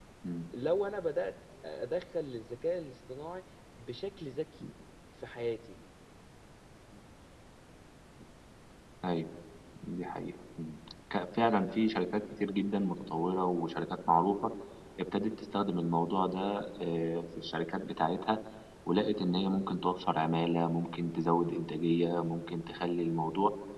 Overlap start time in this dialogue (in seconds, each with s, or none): none